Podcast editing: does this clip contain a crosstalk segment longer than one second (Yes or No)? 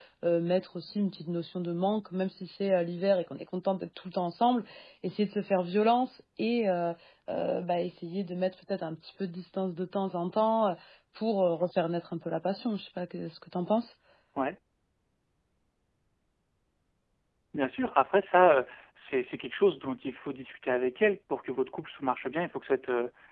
No